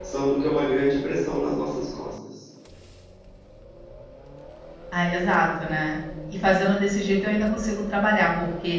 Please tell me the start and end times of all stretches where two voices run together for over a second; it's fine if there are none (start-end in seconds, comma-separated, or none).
none